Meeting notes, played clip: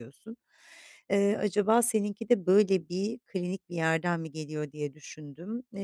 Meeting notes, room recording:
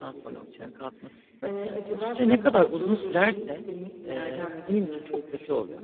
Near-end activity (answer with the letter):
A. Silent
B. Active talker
B